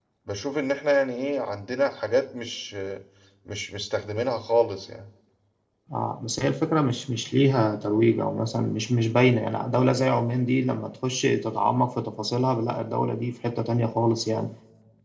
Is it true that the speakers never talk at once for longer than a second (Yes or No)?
Yes